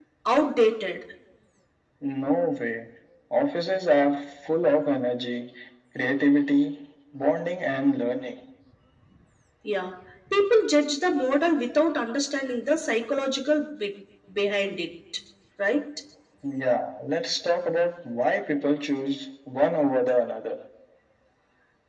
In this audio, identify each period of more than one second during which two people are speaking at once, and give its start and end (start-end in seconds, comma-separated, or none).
none